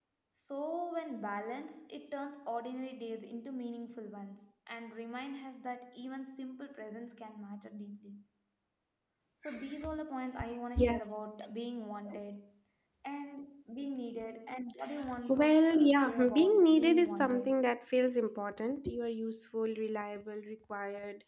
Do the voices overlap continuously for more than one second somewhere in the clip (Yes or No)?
Yes